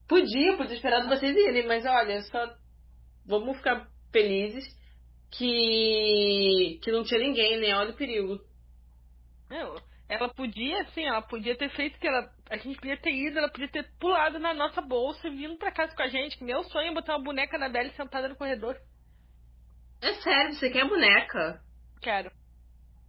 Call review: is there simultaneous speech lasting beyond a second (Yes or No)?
No